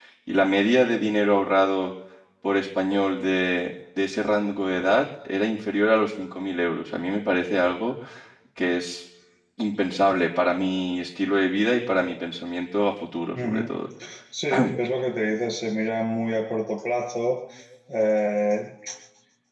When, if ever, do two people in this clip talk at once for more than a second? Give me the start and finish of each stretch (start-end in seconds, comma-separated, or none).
none